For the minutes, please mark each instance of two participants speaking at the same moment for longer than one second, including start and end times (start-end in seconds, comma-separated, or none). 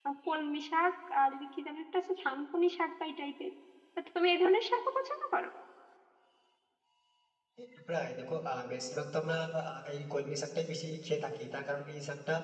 none